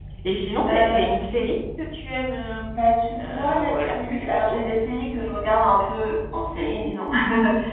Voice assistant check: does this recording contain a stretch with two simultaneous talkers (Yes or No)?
Yes